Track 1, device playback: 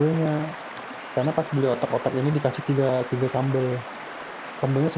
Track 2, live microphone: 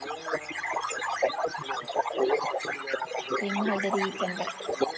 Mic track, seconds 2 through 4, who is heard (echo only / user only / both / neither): both